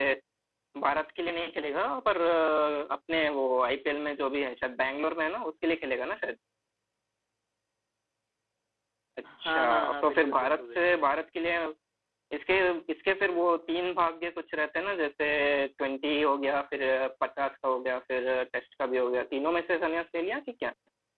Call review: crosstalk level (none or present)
present